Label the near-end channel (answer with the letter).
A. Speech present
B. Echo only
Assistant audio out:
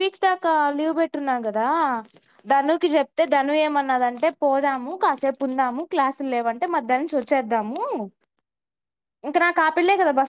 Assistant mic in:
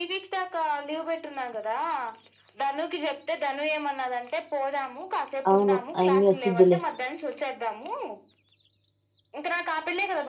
A